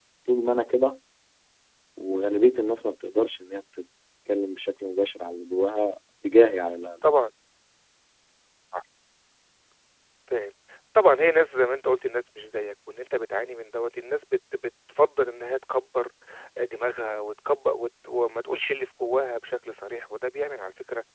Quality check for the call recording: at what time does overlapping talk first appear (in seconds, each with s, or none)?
none